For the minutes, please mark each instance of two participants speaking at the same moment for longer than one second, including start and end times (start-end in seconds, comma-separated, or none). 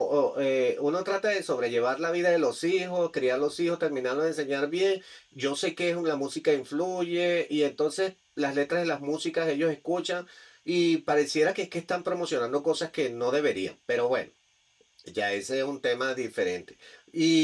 none